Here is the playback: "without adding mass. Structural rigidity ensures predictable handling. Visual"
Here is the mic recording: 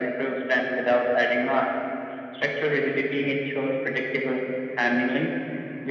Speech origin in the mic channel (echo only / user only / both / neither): echo only